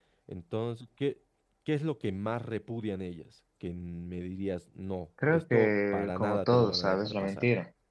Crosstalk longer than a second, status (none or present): present